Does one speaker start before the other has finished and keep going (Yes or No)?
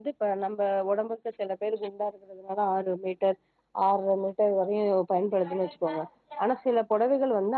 No